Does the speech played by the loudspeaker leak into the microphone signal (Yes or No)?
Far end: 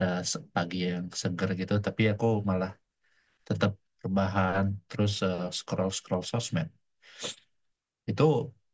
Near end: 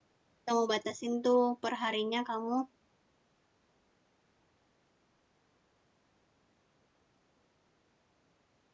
No